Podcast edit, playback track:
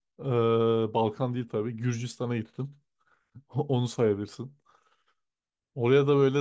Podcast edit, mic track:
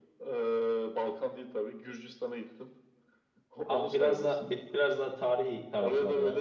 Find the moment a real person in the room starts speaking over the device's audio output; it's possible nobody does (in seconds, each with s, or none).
3.6 s